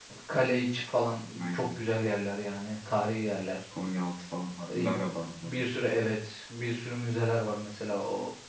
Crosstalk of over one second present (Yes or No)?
No